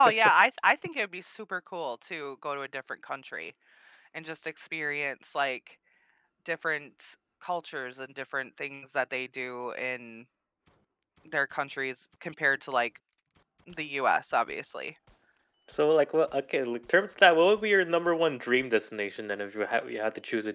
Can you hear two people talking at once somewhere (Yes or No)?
No